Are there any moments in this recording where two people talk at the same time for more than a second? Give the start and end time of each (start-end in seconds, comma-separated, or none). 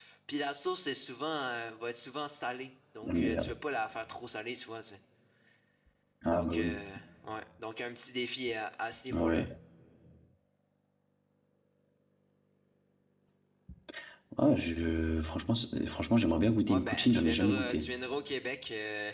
16.7-17.9